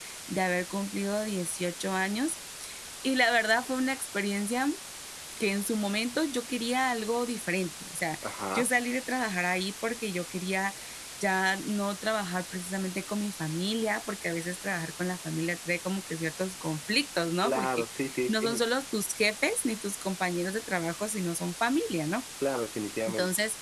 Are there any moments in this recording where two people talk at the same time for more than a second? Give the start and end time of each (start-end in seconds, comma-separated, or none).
none